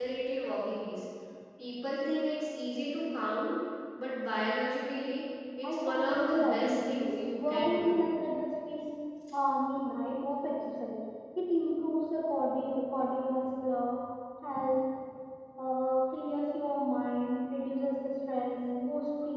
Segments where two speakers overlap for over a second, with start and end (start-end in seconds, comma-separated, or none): 5.6-8.0